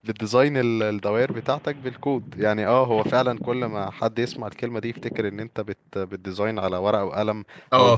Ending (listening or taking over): taking over